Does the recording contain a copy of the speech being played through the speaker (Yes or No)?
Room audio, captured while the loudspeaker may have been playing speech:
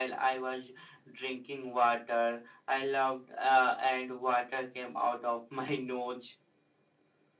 Yes